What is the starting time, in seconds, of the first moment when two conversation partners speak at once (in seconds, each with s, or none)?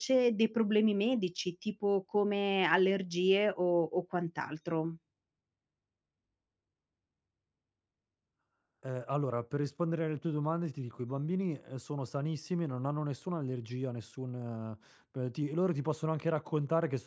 none